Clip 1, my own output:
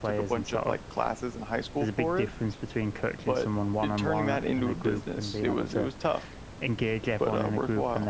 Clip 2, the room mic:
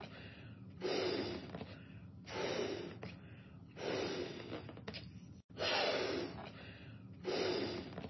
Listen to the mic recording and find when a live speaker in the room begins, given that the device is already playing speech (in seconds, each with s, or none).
none